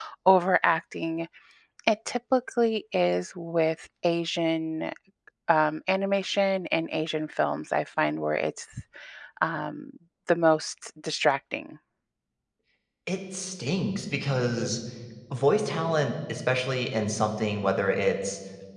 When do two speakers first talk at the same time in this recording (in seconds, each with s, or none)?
none